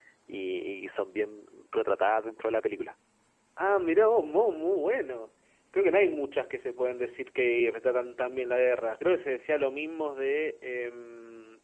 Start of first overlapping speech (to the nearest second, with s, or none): none